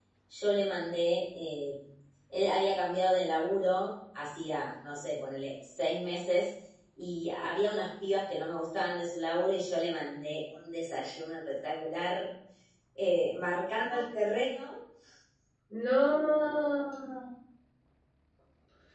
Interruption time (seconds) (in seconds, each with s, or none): none